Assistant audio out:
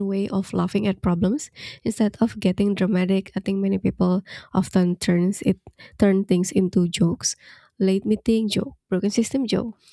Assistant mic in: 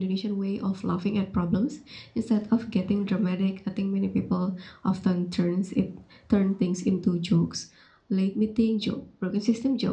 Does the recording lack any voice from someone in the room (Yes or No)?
Yes